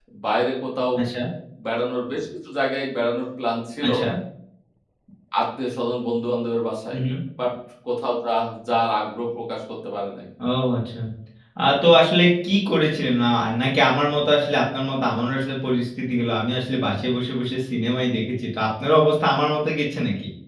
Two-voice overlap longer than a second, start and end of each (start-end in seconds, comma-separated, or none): none